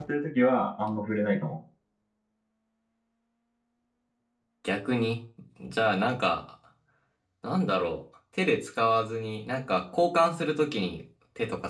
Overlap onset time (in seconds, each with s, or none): none